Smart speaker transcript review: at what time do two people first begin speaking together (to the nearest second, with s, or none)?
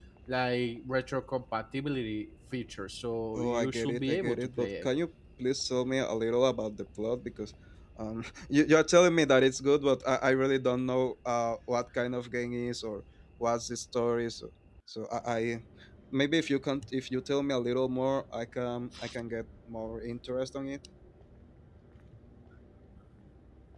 3 s